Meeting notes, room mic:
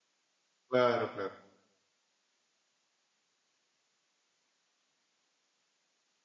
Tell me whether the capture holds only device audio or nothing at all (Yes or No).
No